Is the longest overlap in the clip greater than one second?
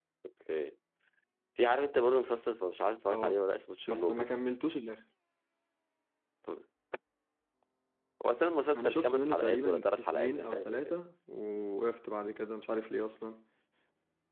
Yes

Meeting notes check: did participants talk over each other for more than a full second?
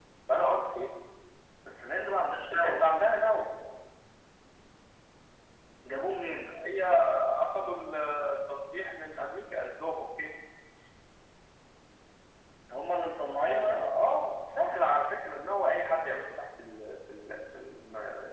No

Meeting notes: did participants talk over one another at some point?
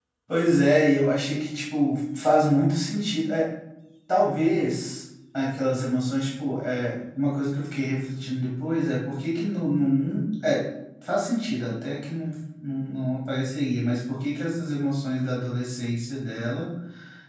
No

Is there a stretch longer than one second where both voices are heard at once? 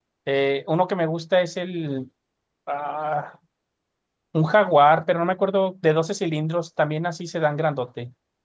No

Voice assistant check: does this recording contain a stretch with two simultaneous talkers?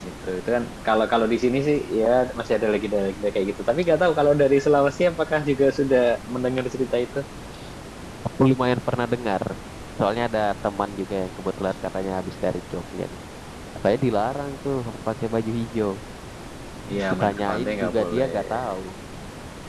Yes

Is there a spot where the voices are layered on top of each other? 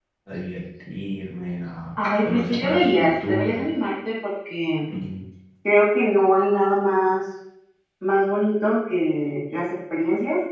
Yes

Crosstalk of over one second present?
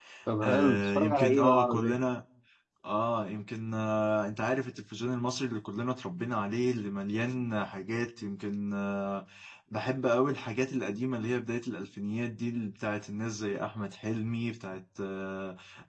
Yes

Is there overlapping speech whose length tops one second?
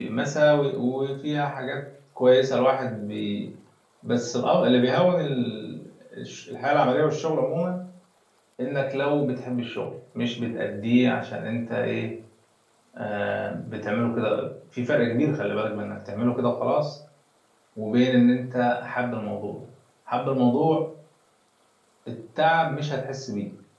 No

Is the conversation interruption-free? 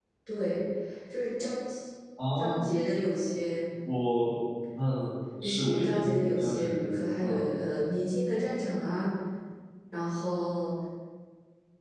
No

